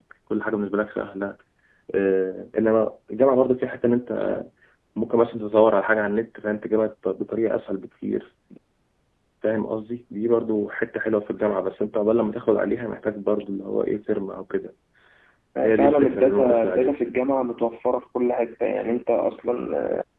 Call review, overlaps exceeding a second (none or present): present